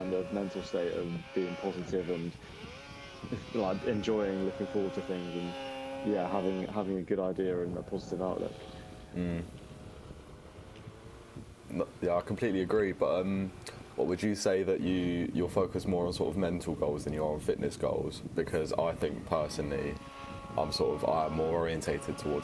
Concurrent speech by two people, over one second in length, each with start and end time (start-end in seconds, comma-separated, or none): none